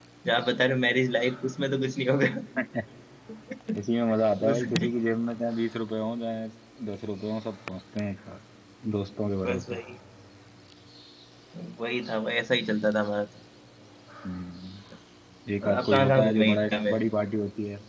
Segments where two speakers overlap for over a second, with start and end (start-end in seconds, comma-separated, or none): 15.6-17.0